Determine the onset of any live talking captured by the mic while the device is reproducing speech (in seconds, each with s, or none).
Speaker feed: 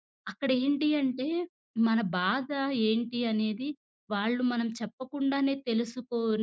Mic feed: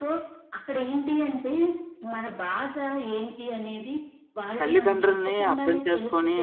4.6 s